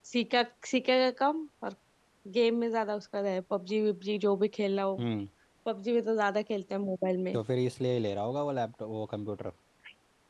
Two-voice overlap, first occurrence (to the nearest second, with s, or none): none